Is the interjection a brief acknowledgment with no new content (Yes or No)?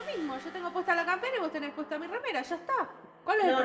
No